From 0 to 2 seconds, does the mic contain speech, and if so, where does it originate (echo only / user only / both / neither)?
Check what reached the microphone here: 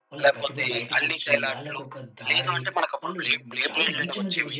both